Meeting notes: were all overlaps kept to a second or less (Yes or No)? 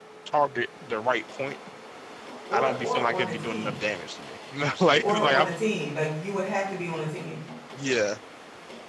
No